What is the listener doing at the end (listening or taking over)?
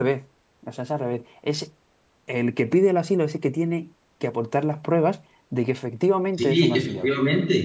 taking over